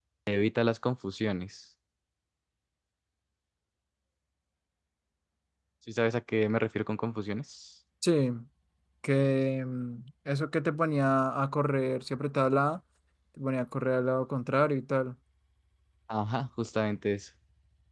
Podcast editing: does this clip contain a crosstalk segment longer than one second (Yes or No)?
No